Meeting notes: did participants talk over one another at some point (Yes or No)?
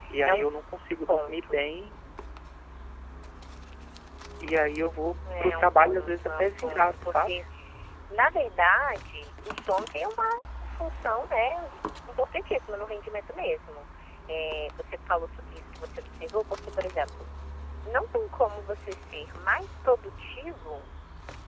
Yes